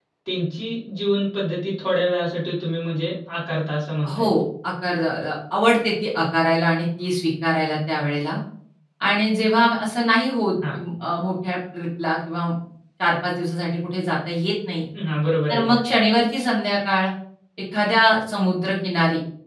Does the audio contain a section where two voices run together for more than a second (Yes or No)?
No